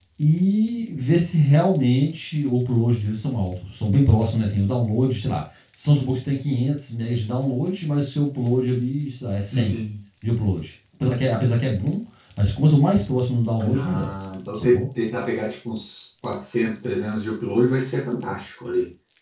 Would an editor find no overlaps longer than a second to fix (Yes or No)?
Yes